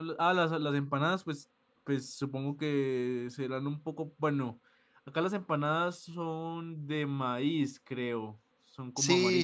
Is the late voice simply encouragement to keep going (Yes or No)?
No